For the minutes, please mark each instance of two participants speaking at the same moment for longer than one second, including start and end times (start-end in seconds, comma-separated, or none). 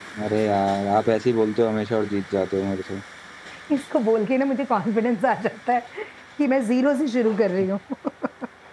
none